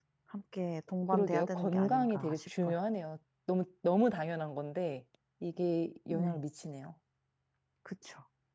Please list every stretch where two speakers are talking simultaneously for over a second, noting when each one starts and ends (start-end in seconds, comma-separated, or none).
1.1-2.8